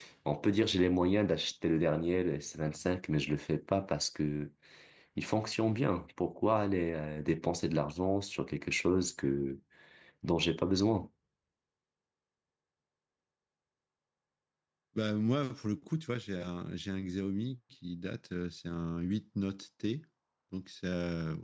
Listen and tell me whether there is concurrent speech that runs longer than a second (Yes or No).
No